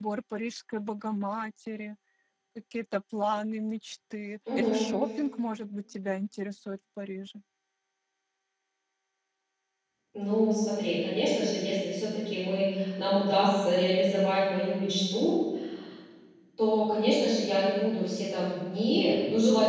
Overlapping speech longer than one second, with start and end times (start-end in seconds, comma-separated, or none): none